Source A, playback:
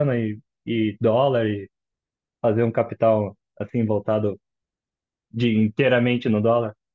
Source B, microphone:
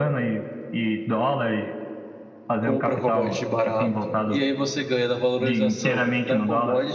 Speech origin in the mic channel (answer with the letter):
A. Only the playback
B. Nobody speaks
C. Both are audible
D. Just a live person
C